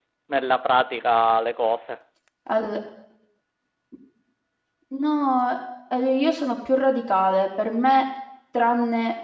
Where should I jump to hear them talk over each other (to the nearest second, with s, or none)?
none